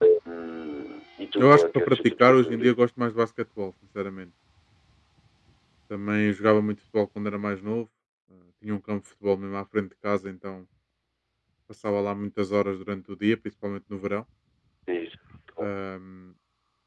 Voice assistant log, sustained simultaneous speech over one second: present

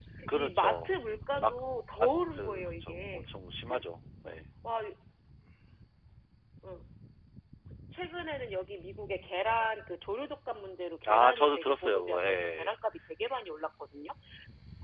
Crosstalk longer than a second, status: present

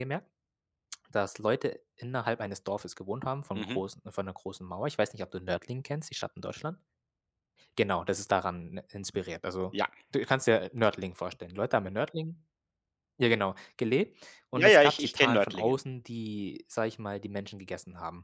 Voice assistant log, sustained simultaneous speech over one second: present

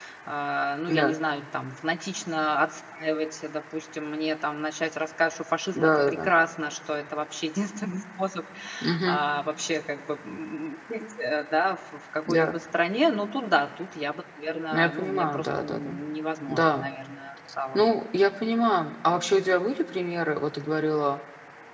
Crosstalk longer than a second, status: present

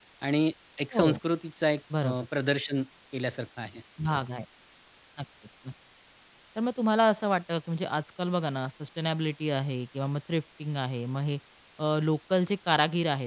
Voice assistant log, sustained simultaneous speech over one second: none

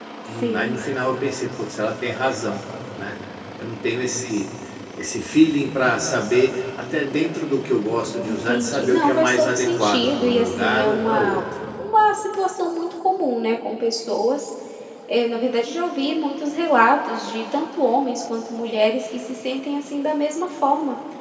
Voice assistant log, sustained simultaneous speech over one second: present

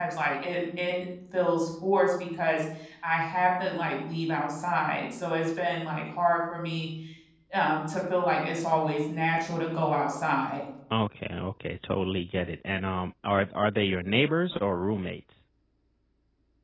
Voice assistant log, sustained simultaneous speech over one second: none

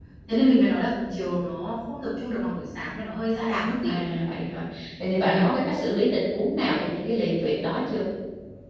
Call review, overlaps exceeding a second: none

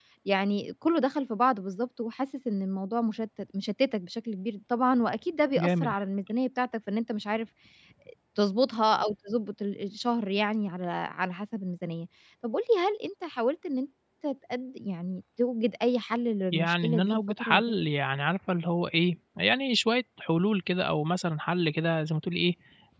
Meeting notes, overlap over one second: present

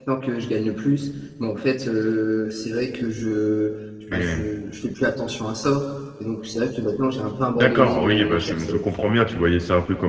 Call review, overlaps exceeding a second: present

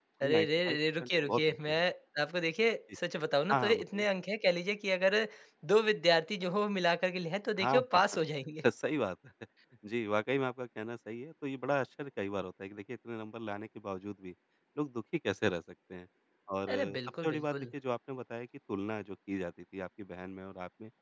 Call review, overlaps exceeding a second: present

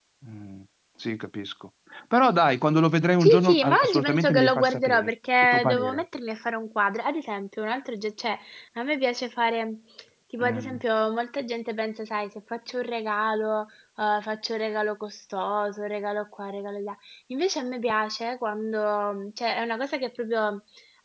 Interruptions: present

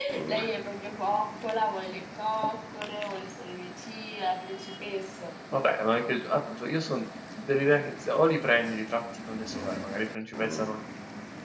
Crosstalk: none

